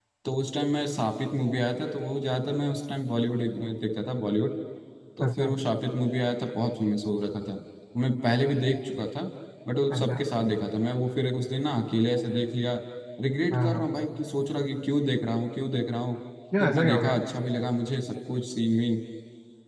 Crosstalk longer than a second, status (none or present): none